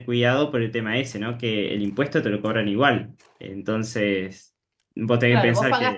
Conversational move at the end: taking over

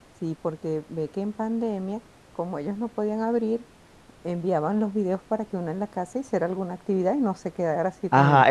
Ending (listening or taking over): taking over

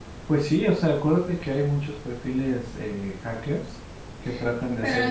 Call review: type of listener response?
taking over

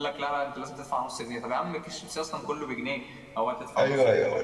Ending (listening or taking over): taking over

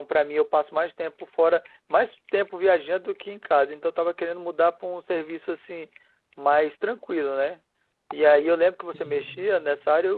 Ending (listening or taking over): listening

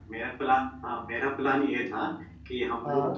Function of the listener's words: listening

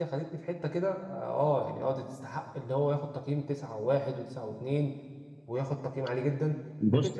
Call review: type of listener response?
taking over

